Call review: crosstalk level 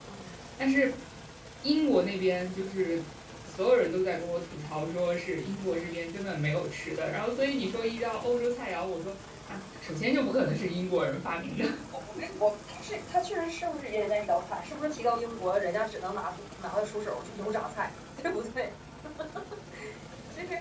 none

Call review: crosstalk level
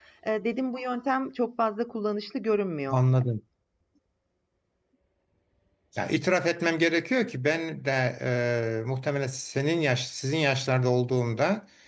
none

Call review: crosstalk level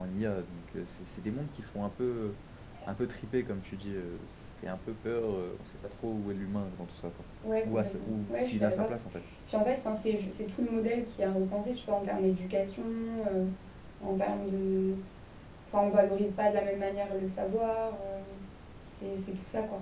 present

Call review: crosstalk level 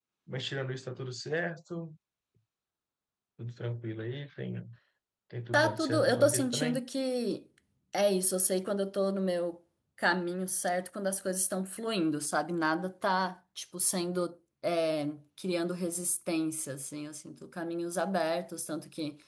present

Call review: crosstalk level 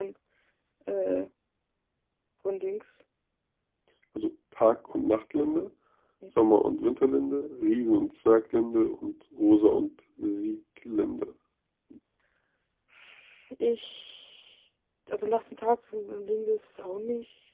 none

